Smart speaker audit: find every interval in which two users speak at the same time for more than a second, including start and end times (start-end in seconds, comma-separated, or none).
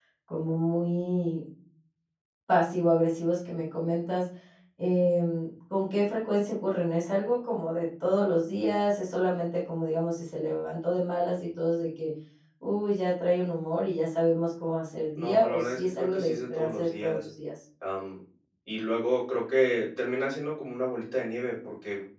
15.2-17.3